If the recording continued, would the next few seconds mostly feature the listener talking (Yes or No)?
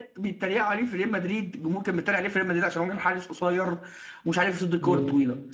No